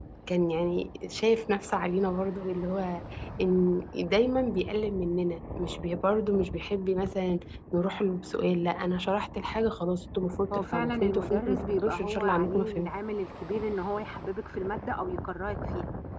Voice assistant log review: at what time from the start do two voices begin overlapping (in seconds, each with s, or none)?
10.5 s